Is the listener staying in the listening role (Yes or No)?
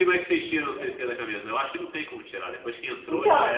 No